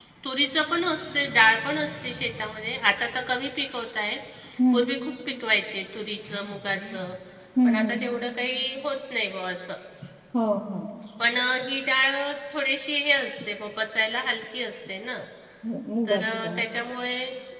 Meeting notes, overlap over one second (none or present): none